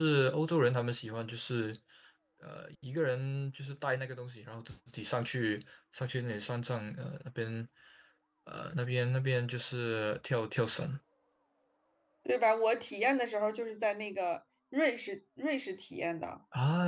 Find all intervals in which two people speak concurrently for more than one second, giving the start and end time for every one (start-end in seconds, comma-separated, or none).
none